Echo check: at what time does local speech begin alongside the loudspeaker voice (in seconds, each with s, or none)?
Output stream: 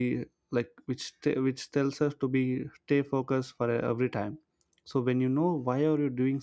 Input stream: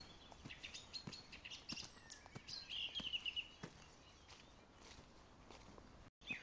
none